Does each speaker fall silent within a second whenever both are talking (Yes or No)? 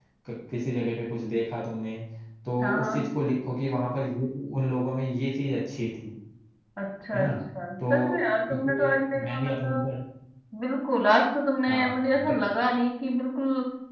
No